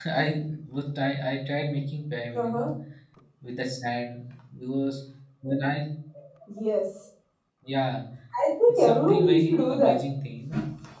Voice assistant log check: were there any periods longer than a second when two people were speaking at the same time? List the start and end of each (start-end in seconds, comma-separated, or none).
8.7-10.0